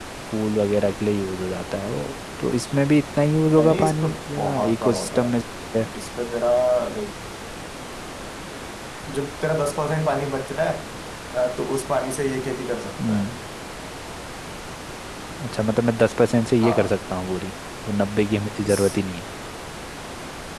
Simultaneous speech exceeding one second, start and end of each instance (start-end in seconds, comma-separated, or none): 3.5-5.3